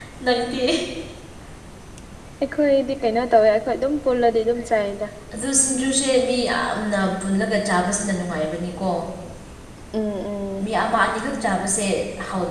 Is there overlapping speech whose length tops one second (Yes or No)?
No